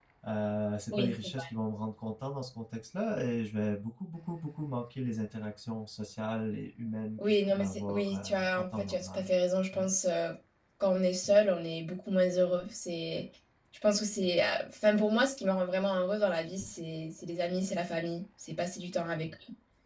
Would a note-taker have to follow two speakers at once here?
Yes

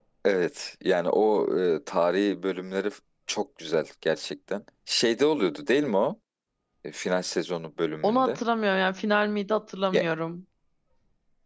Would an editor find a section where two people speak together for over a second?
No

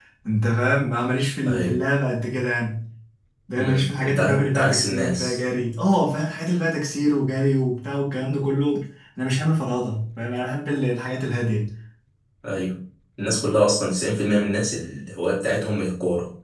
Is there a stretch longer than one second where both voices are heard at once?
Yes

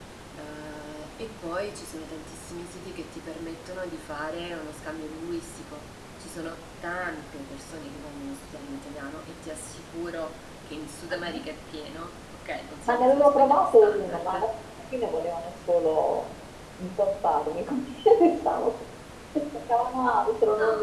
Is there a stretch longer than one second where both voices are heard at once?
Yes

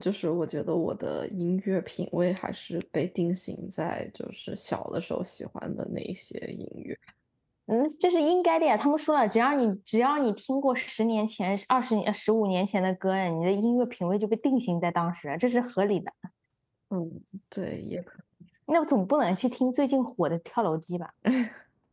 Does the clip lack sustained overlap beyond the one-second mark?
Yes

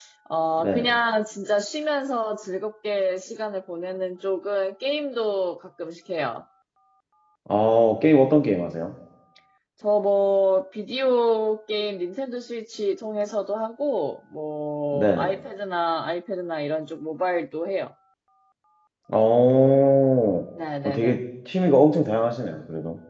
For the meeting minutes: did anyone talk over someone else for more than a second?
No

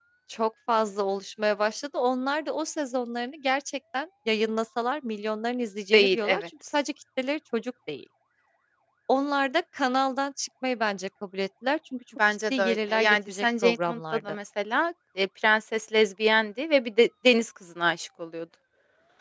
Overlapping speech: Yes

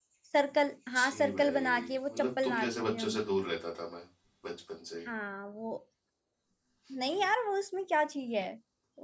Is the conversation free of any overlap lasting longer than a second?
No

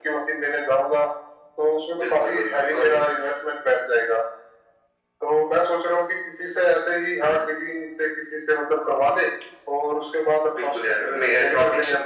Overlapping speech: Yes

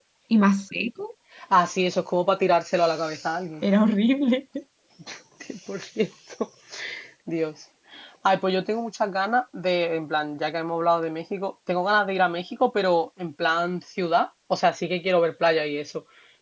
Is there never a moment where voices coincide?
Yes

